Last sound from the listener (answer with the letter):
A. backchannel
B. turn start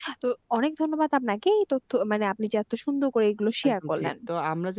B